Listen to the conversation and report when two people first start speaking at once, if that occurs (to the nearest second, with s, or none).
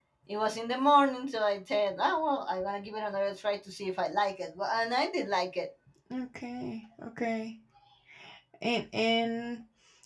none